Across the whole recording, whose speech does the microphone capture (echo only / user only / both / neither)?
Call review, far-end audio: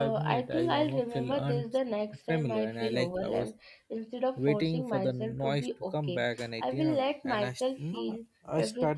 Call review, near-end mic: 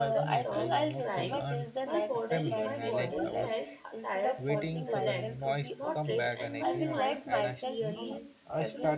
both